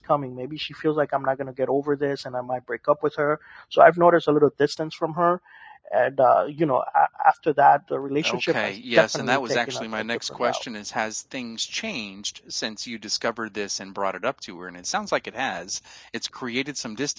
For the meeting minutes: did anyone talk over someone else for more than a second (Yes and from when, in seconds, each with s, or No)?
Yes, from 8.2 s